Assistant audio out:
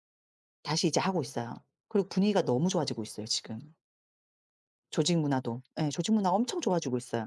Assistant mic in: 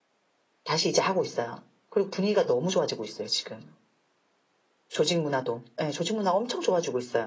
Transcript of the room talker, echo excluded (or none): none